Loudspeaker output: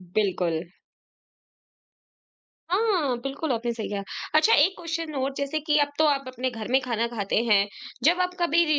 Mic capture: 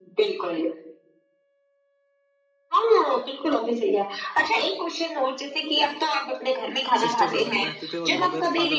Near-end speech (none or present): present